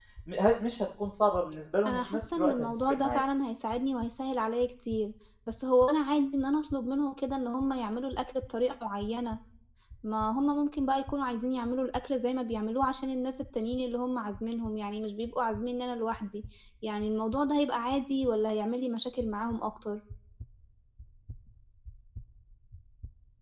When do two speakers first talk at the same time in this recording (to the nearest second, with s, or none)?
2 s